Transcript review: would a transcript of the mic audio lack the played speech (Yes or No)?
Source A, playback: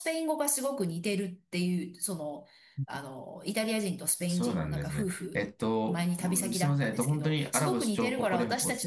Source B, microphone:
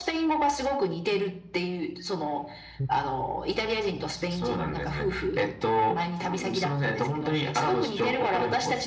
No